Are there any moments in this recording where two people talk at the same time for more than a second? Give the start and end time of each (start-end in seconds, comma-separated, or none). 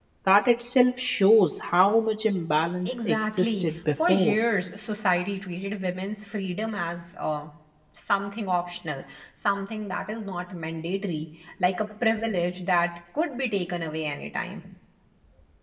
2.9-4.4